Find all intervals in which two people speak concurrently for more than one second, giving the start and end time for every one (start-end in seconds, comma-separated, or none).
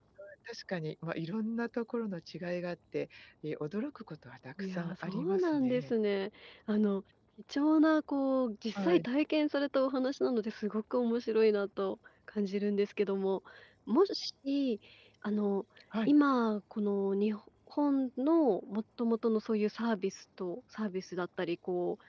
4.6-5.9